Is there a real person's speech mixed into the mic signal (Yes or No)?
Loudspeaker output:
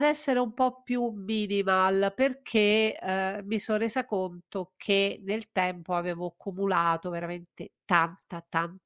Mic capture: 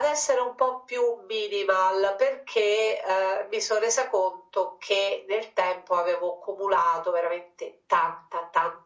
No